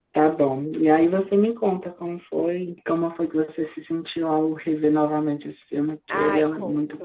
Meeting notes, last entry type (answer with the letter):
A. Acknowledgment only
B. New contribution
B